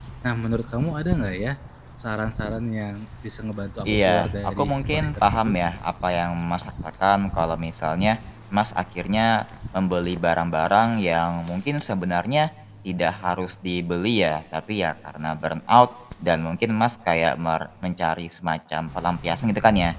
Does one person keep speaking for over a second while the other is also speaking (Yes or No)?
Yes